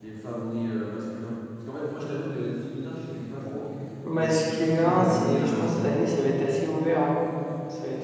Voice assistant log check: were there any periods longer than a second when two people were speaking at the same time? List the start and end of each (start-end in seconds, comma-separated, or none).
4.1-5.9